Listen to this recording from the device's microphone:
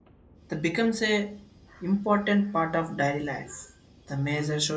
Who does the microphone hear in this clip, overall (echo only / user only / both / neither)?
user only